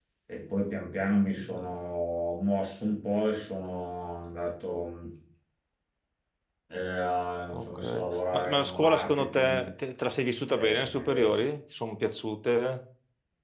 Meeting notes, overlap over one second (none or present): present